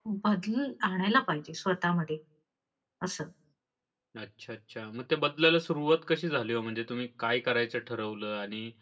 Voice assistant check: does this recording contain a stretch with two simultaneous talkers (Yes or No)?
No